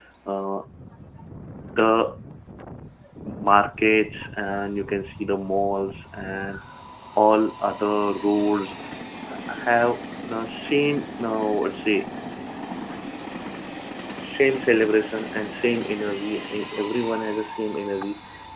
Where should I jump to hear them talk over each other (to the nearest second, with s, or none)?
none